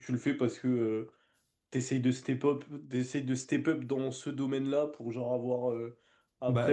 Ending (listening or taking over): listening